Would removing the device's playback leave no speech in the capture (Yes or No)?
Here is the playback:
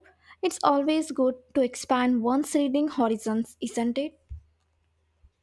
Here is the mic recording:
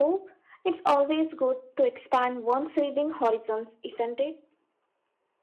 Yes